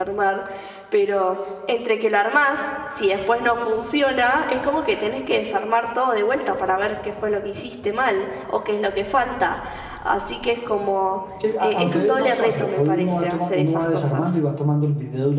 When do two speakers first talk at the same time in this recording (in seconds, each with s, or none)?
11.6 s